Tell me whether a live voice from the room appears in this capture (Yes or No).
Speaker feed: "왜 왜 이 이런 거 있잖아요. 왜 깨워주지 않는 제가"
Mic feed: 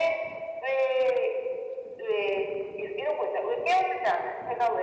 No